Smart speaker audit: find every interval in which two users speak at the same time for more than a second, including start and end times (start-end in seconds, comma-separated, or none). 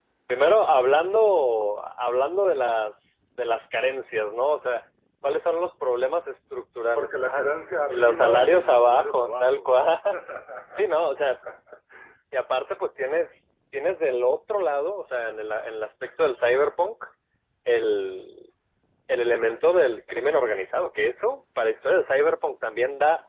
7.9-9.7